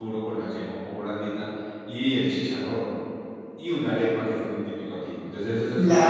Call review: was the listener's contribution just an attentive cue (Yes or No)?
No